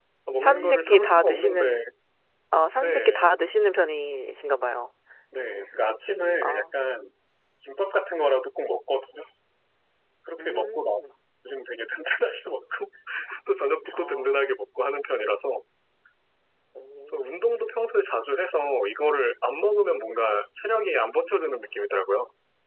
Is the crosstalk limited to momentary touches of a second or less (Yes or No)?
No